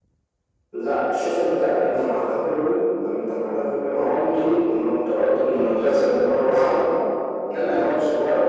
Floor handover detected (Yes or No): No